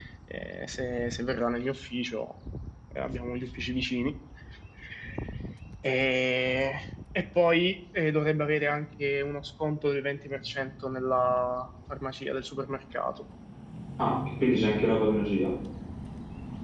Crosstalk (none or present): none